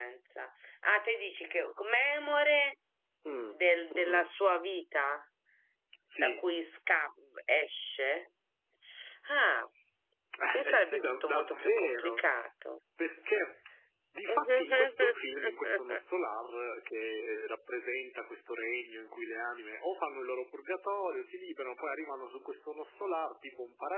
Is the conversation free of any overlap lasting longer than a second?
No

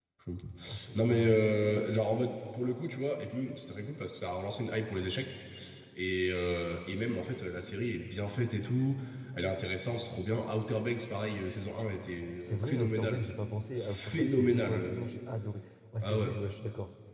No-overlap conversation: No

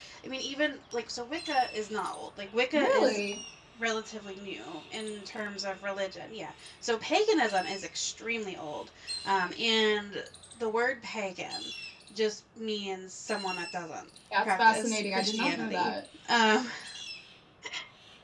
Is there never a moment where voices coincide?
No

